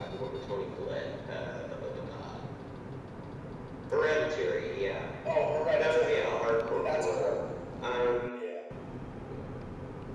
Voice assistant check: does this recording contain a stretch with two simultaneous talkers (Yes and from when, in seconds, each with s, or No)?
Yes, from 5.8 s